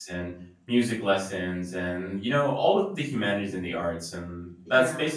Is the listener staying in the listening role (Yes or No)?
Yes